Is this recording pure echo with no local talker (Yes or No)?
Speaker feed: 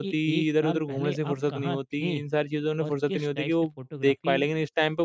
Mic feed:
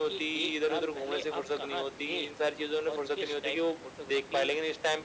Yes